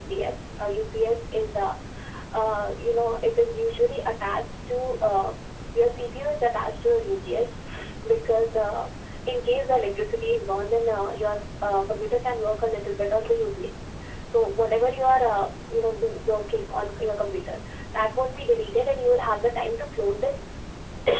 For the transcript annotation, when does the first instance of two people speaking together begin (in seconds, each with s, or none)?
none